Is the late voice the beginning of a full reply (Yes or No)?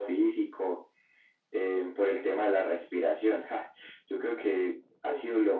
No